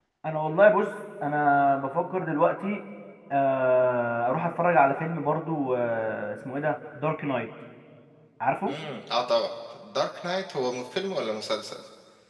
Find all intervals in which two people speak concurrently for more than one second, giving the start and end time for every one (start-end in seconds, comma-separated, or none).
none